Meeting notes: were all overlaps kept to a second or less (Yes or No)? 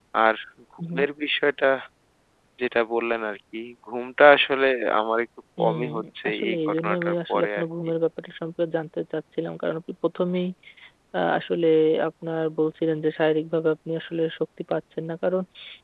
No